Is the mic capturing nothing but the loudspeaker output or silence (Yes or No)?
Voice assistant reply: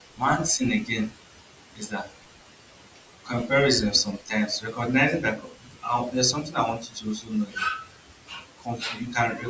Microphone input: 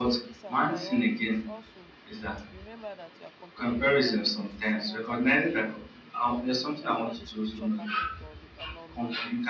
No